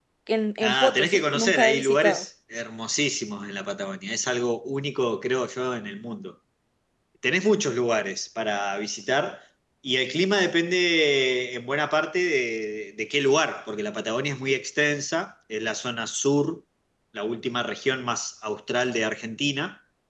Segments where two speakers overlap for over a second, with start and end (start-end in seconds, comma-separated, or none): 0.6-2.2